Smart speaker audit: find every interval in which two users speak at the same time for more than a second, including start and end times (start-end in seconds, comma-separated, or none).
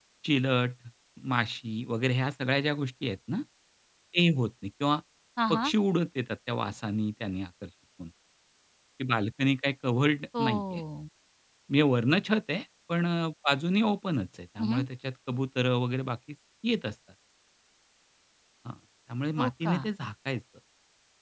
none